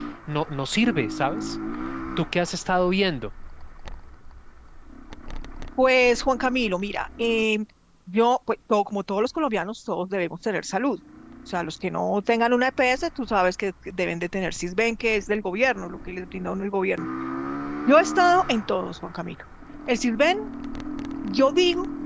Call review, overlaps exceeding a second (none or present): none